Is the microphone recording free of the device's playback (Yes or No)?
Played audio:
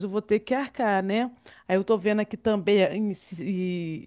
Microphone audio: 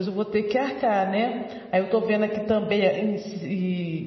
No